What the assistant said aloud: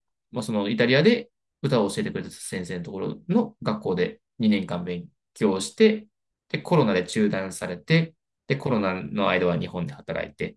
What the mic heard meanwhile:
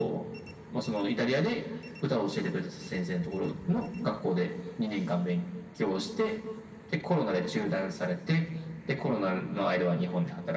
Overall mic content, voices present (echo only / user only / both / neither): echo only